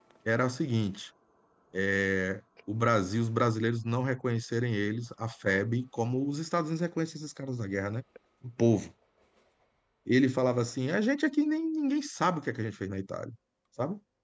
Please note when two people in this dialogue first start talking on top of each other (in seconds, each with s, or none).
none